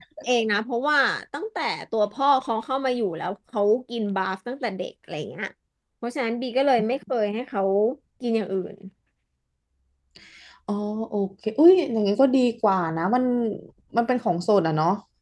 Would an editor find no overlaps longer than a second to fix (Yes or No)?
Yes